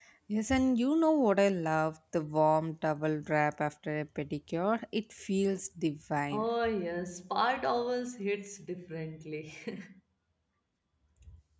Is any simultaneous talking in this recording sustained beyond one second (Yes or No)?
No